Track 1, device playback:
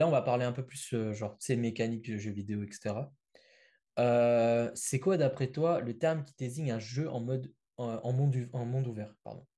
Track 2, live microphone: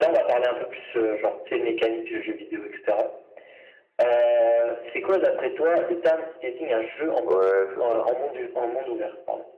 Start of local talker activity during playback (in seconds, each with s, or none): 7.2 s